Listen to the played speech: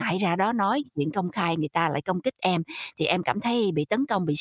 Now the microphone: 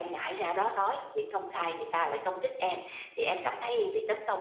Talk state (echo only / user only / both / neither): echo only